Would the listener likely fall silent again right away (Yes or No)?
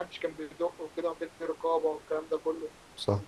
Yes